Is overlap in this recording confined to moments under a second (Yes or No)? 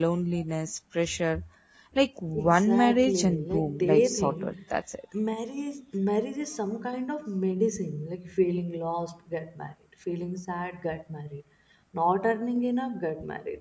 No